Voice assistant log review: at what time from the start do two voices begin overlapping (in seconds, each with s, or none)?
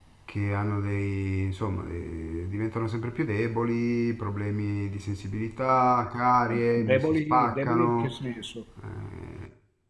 6.5 s